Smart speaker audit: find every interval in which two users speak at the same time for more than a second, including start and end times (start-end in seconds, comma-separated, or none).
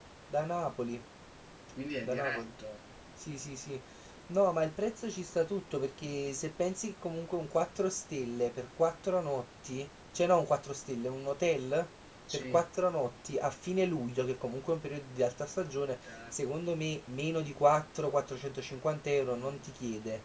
none